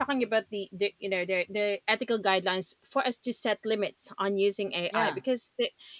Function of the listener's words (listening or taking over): listening